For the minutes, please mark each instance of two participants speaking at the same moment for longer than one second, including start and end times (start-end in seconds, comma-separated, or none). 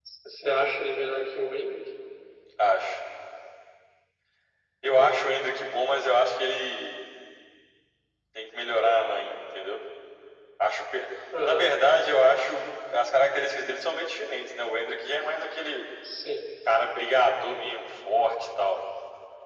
none